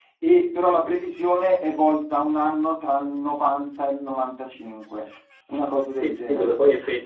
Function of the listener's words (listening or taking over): taking over